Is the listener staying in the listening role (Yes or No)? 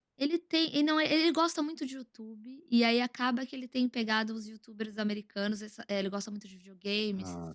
Yes